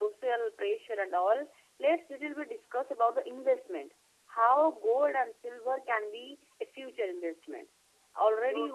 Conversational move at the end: listening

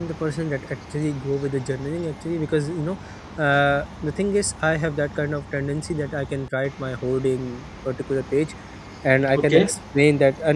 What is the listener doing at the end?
listening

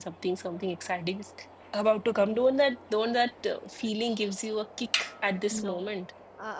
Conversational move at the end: taking over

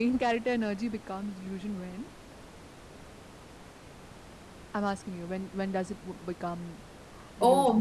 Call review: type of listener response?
taking over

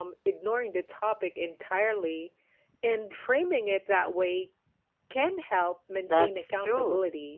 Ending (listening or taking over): taking over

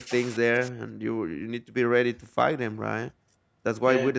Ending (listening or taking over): listening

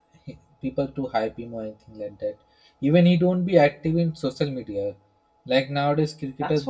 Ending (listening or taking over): taking over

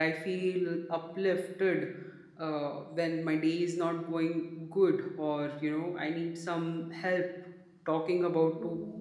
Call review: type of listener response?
listening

